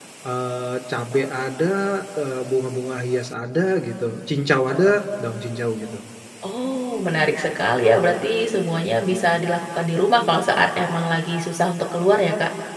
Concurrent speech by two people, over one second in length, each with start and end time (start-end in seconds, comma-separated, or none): none